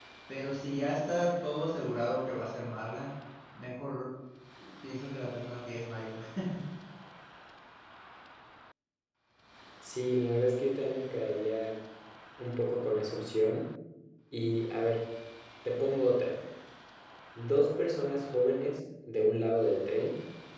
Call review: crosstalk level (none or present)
none